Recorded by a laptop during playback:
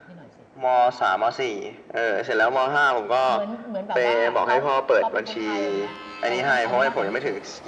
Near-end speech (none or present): present